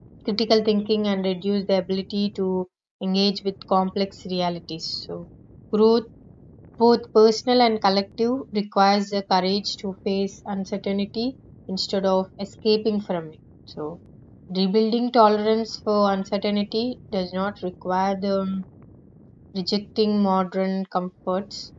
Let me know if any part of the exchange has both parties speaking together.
No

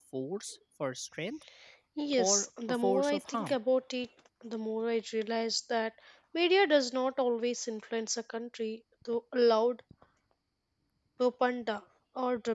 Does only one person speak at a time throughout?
No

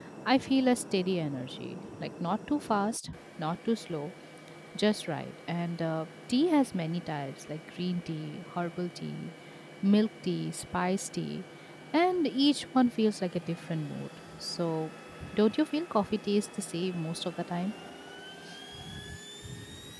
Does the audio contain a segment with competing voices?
No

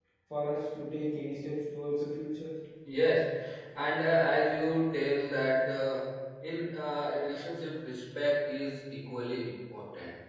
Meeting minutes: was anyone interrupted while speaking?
No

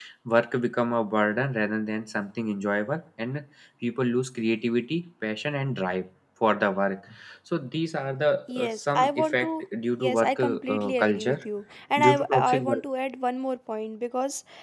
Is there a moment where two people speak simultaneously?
Yes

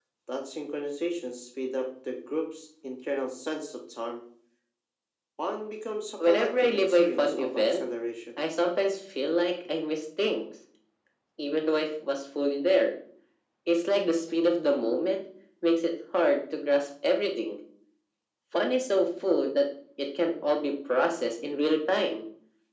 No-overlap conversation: No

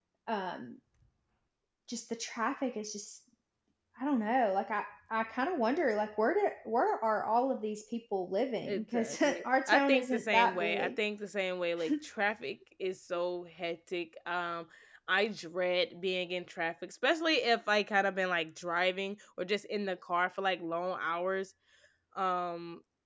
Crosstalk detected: Yes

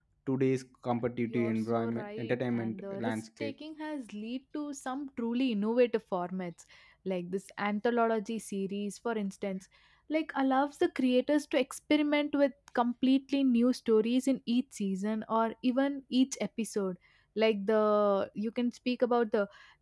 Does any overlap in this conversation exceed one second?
Yes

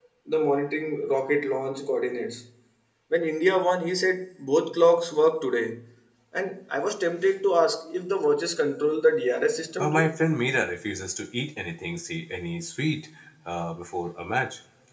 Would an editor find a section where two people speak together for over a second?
No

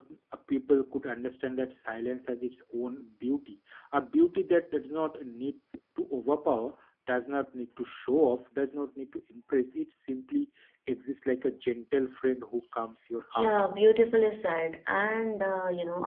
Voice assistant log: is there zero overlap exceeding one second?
Yes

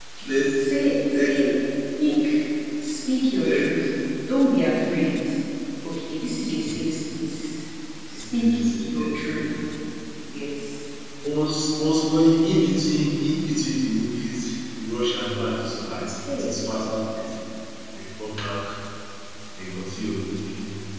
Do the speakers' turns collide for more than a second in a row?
Yes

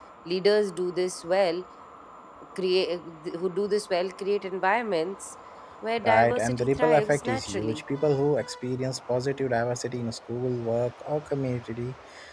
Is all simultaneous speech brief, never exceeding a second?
No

